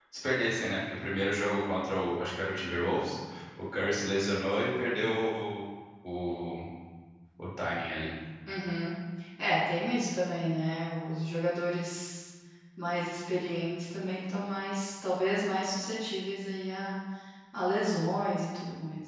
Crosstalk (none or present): none